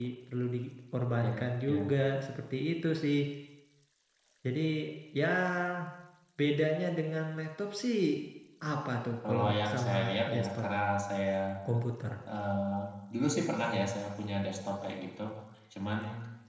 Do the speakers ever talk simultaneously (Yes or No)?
Yes